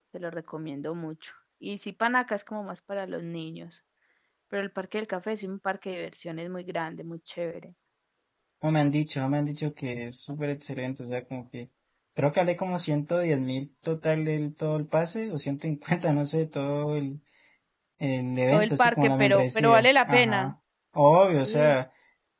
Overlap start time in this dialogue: 18.5 s

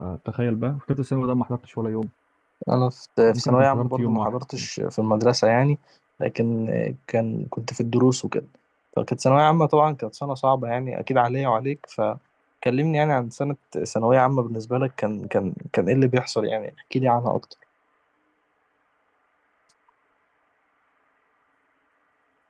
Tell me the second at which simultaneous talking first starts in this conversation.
3.4 s

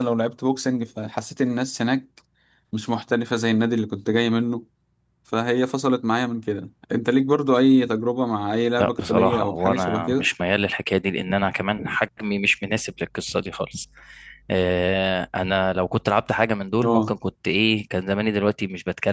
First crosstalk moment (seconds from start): 8.8 s

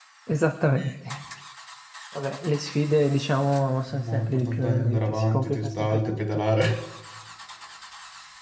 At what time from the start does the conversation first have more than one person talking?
3.9 s

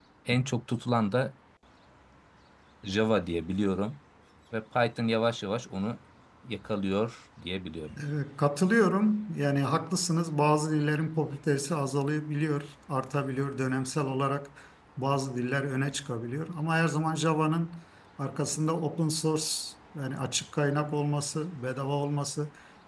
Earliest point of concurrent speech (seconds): none

